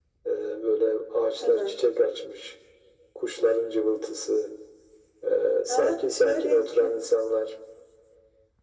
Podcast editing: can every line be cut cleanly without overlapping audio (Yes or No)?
No